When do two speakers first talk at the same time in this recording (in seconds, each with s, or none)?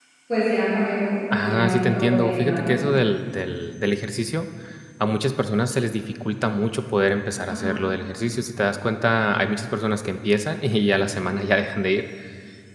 1.3 s